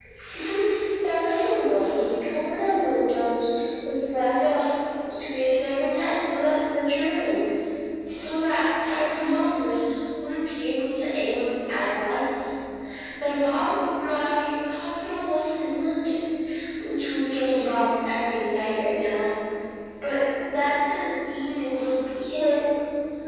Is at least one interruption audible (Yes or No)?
No